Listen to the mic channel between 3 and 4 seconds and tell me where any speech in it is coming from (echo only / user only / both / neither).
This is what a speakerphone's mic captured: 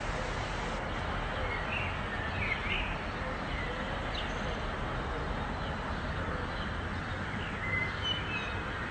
neither